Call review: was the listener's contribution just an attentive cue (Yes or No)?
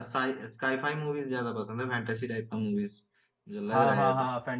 No